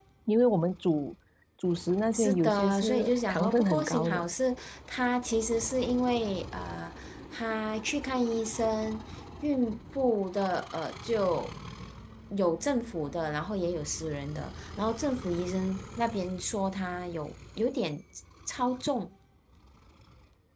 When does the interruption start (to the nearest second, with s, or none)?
2 s